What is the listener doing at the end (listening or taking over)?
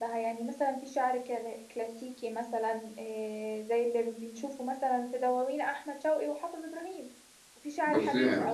listening